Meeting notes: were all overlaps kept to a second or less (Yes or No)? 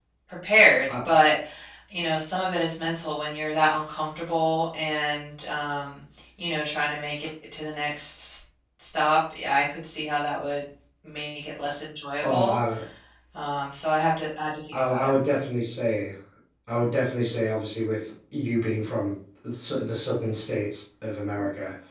Yes